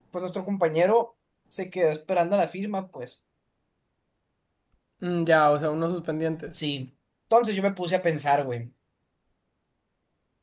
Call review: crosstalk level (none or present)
none